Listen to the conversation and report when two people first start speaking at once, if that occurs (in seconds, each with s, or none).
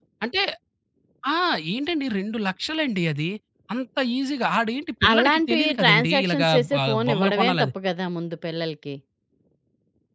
5.0 s